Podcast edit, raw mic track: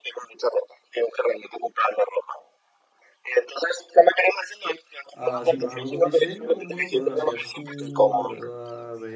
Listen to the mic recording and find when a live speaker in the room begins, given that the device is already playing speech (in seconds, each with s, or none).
5.1 s